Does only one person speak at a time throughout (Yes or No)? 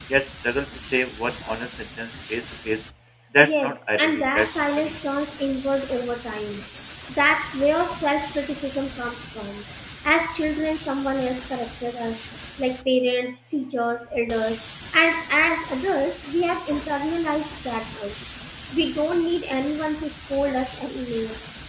No